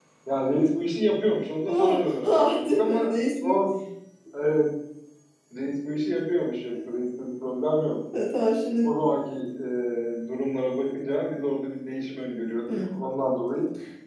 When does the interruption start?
1.6 s

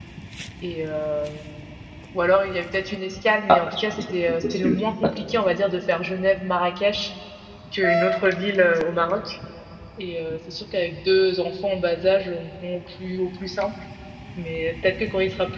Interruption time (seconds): 3.5 s

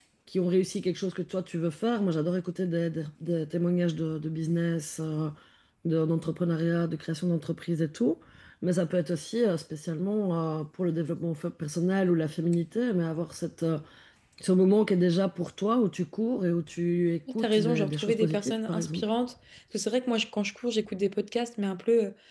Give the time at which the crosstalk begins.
17.3 s

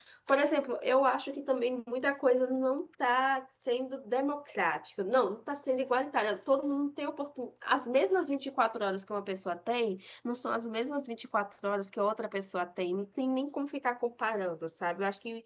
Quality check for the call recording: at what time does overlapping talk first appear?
none

